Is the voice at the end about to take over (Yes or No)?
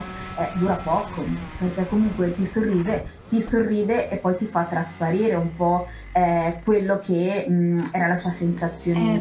Yes